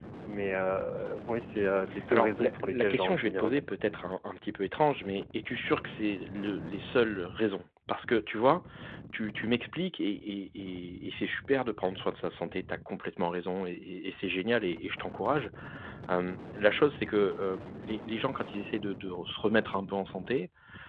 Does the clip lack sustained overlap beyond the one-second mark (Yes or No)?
No